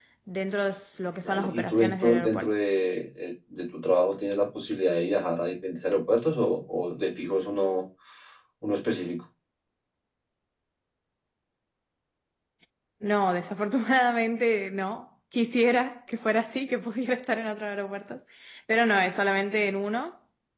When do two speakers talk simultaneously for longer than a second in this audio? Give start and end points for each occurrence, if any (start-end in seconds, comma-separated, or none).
1.2-2.5